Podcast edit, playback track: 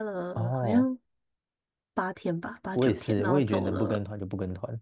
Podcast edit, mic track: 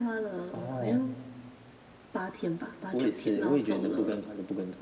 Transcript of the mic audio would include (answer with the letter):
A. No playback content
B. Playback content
B